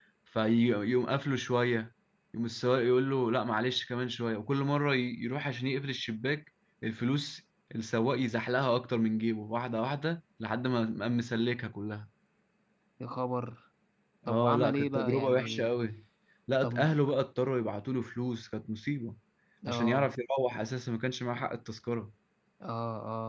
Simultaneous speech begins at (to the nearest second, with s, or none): 14 s